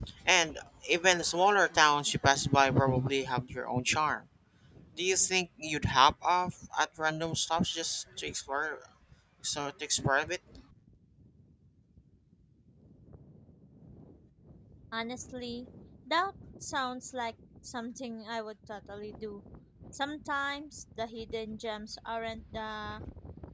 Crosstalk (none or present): none